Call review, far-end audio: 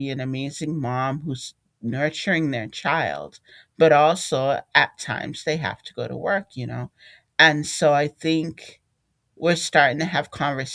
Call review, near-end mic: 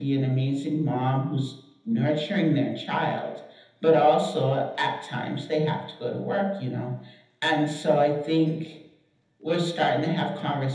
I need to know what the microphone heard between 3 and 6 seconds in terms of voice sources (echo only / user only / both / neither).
echo only